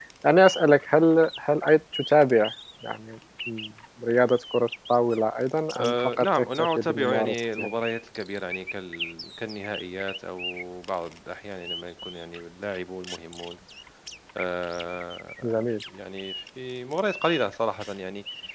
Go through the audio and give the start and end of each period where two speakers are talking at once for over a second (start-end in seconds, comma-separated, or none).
5.8-7.7